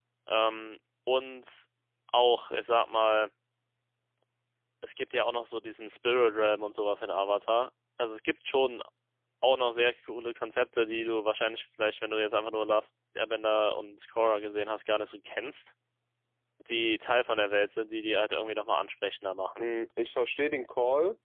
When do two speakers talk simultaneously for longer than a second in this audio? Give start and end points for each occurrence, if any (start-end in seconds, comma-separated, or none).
none